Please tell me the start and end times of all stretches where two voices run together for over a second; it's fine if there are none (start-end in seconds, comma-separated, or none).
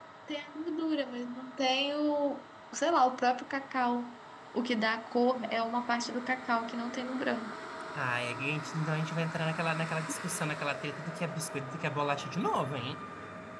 none